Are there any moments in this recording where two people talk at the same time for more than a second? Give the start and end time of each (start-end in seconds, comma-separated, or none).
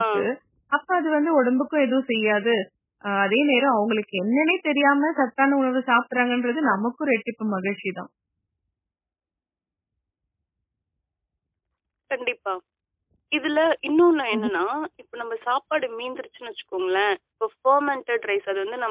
none